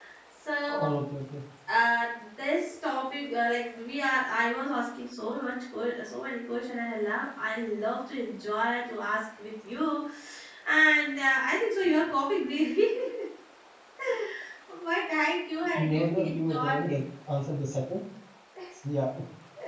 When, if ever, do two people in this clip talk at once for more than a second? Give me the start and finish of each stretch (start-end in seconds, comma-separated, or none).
15.7-17.0